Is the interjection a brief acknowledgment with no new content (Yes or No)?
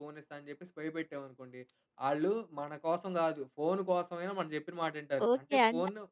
No